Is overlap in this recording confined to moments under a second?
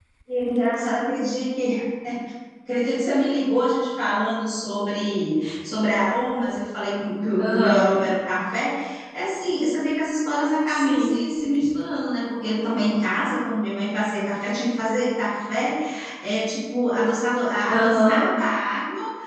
Yes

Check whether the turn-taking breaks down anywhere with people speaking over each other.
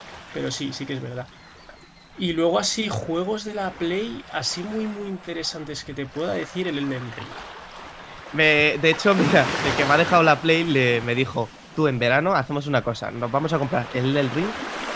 No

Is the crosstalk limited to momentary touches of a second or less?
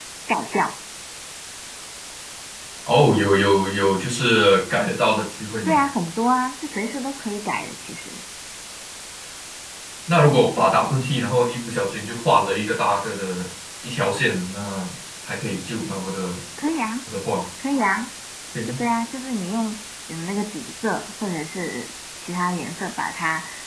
Yes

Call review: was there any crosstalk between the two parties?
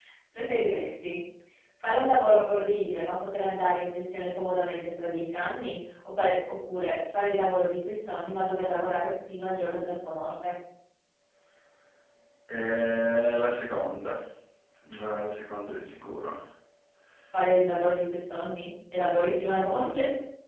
No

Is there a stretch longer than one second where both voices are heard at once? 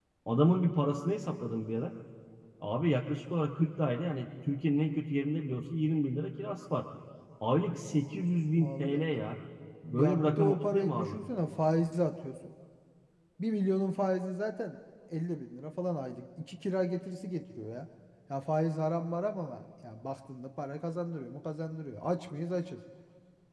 Yes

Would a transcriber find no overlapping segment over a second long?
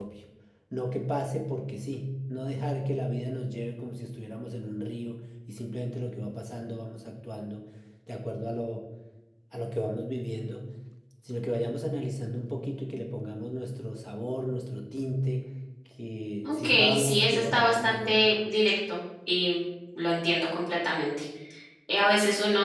No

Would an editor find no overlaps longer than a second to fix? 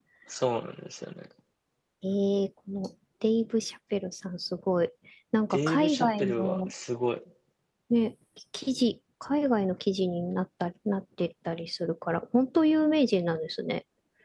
No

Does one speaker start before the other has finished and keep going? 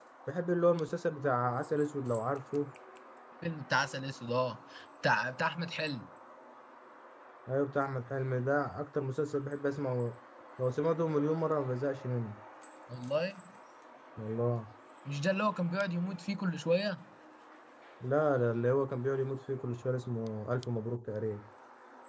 No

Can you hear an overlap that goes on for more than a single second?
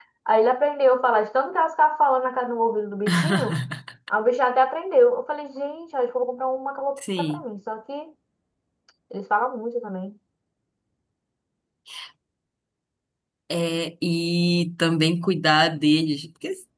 No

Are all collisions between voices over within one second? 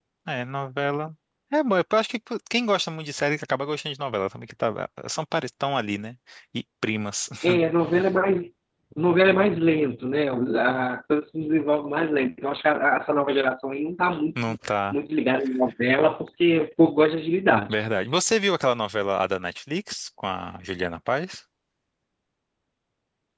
Yes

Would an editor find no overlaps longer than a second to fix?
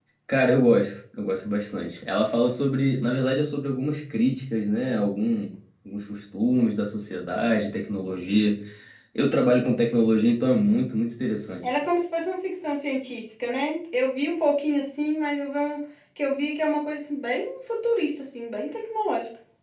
Yes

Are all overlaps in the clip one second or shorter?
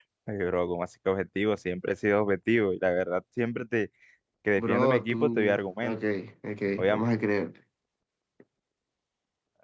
No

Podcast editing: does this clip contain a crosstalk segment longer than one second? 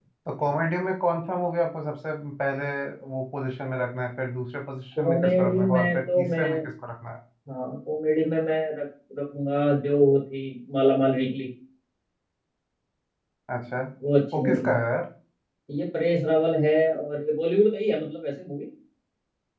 Yes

